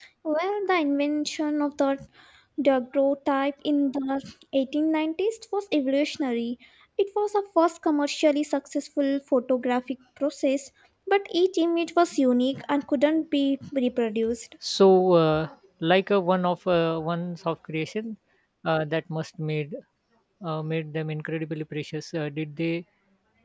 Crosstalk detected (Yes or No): No